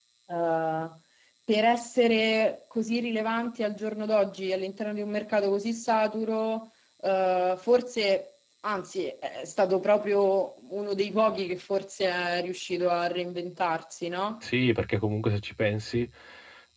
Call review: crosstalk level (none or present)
none